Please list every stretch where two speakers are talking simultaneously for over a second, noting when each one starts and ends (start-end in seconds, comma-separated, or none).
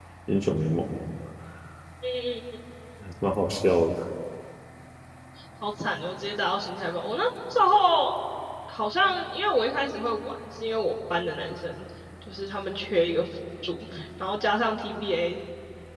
none